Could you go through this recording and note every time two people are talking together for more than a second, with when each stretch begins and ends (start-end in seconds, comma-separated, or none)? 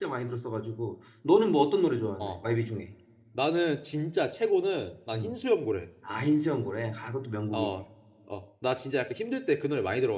none